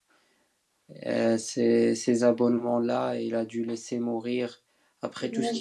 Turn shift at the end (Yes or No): No